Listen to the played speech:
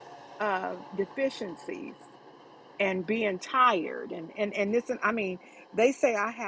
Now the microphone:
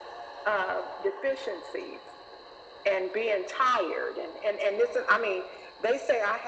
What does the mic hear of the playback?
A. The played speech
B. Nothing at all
A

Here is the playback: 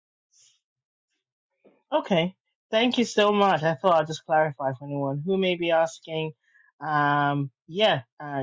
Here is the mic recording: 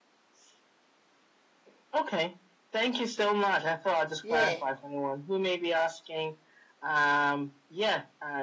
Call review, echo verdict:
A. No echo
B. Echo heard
B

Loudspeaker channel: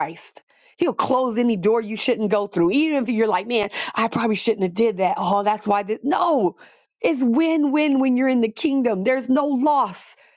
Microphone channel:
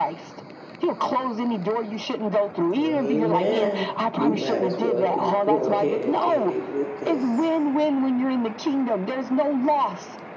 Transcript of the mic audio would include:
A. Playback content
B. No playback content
A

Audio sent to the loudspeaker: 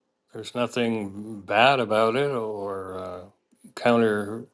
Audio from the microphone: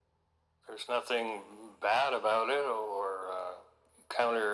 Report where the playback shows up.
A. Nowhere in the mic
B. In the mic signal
B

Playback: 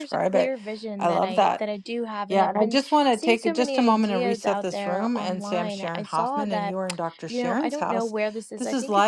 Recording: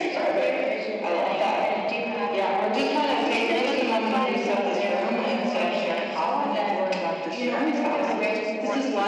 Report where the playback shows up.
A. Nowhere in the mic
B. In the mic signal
B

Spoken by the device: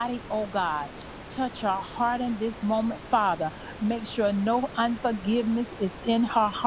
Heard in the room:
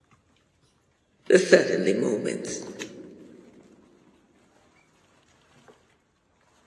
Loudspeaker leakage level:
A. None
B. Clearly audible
A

